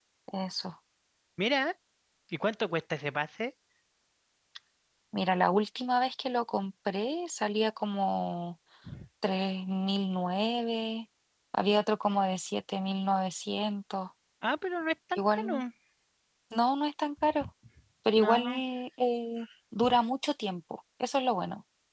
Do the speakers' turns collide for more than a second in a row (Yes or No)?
No